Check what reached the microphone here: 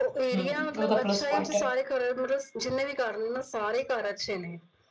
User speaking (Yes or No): Yes